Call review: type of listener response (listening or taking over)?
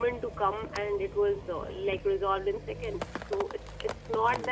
taking over